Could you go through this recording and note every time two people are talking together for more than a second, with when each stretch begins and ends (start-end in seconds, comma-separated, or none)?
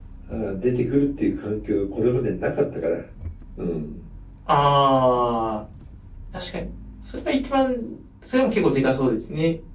none